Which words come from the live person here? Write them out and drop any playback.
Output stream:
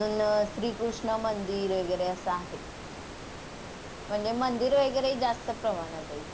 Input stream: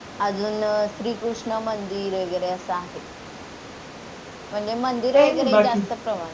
काही नाही बाकी.

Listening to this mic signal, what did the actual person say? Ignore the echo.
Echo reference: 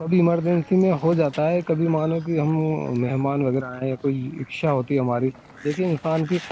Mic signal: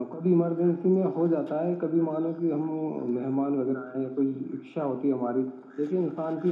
none

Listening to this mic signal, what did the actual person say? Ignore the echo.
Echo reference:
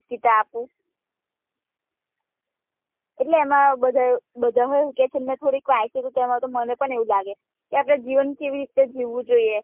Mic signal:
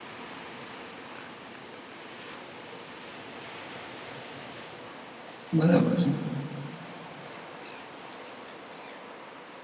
બરાબર છે.

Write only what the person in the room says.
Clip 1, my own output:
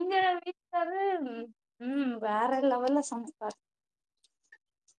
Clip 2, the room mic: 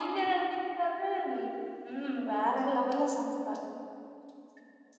none

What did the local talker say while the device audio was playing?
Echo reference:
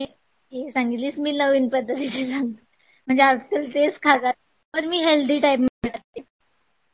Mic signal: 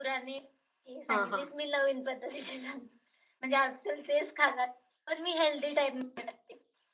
हा हा.

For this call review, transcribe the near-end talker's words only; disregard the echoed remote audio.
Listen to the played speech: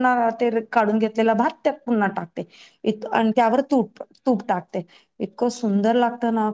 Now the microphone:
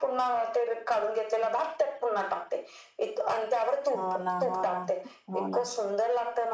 हो ना हो ना हो ना

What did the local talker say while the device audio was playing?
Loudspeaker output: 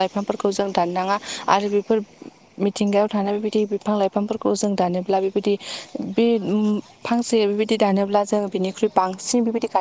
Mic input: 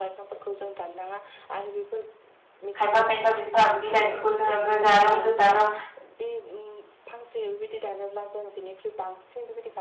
खायफा खायफा बिफा बिलाइफोरखौ जोङो गोजा रोम गोजा रोम

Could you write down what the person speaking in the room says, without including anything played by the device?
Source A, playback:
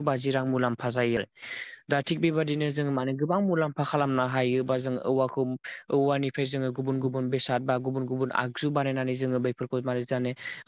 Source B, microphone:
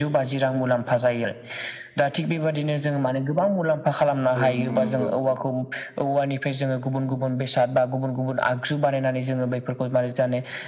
औ नोंथां नंगौ

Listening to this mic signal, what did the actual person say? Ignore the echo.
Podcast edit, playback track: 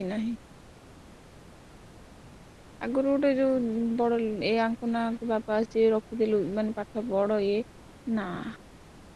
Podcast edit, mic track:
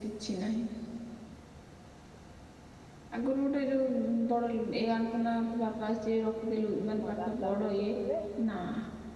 ମୋ ଦାଦା ସେଠୁ ଥିଲେ

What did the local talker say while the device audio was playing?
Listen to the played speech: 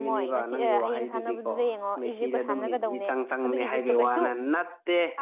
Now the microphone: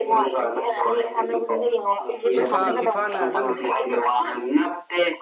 ꯐꯤꯐꯥ ꯐꯤꯐꯥꯅ ꯑꯗꯨꯝ

